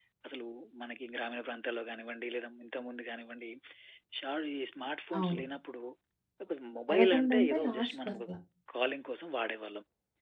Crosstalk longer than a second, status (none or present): present